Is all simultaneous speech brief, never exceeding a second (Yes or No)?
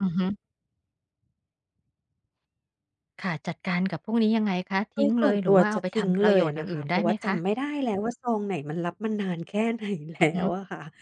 No